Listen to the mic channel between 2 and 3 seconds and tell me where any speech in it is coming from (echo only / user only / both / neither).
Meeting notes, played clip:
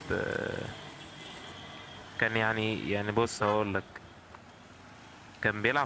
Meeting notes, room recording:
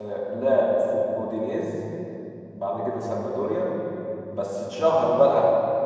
user only